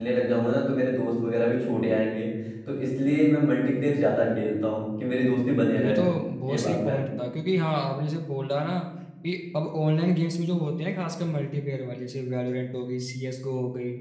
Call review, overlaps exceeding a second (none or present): none